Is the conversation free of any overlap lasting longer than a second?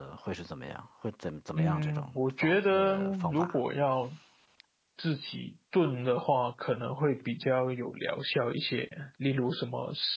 No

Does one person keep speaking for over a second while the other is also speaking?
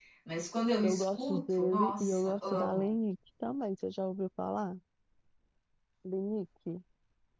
Yes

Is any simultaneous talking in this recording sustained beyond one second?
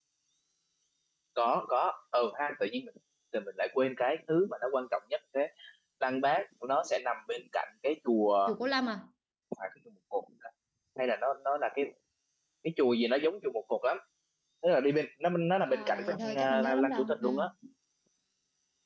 Yes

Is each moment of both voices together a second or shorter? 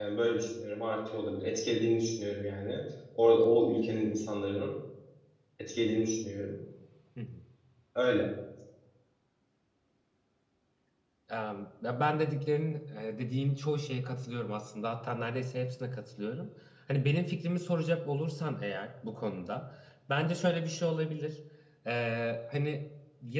Yes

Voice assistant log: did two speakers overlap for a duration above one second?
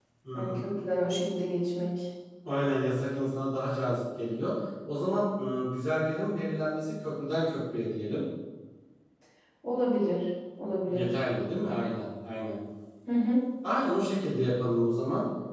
No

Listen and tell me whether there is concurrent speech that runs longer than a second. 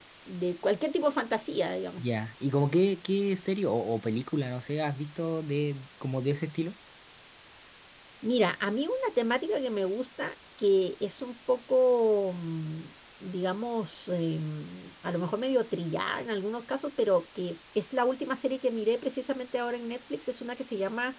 No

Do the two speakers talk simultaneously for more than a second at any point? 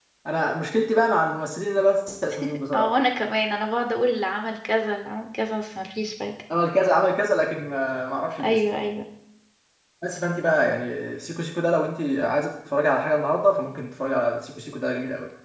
No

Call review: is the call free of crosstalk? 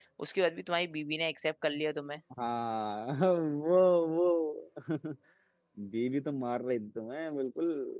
Yes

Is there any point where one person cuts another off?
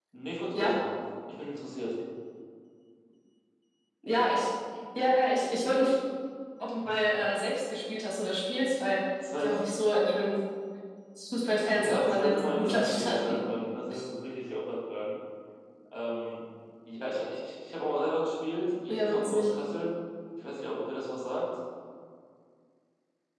Yes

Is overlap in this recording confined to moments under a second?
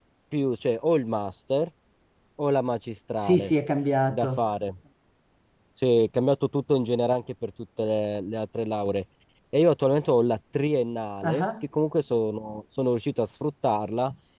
Yes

